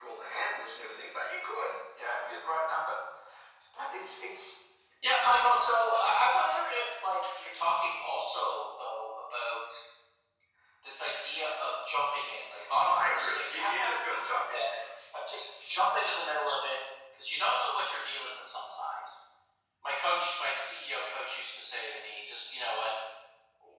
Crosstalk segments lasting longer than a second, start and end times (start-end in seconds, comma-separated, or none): 12.8-14.7